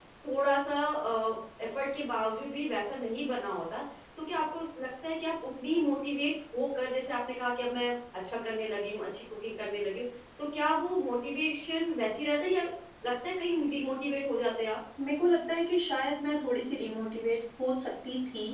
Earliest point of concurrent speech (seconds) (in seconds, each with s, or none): none